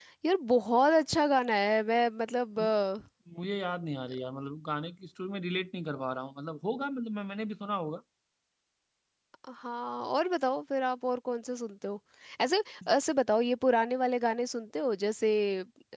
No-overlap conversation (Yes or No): Yes